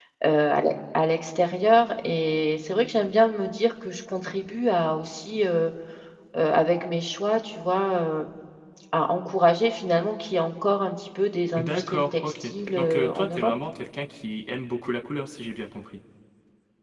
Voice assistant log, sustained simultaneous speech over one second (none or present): present